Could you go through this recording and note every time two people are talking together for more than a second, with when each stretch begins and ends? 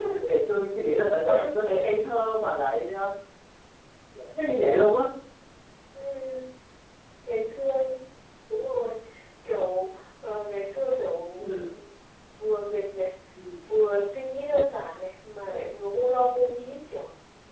none

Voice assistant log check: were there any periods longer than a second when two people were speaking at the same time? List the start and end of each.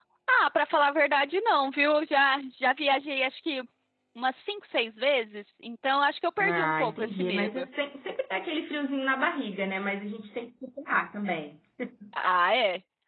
6.4-7.7

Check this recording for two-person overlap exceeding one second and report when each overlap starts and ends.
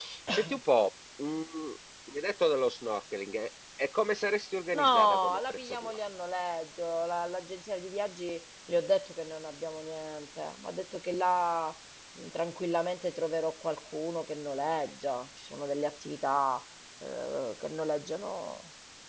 4.7-6.0

